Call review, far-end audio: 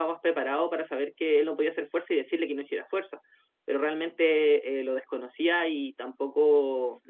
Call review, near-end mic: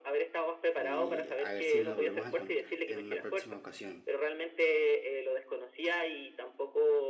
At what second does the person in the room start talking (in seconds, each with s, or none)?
0.8 s